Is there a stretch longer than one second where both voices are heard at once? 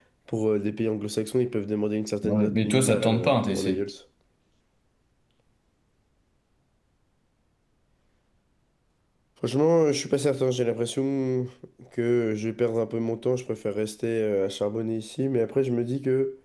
Yes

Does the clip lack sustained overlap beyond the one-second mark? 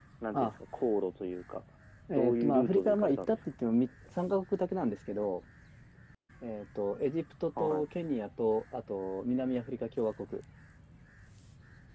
No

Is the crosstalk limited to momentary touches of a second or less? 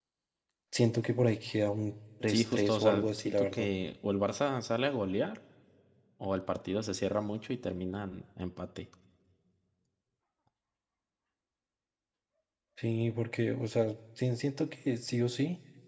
No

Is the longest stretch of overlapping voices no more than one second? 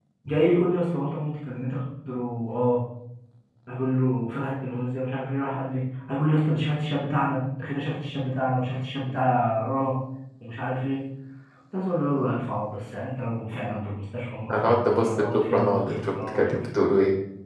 No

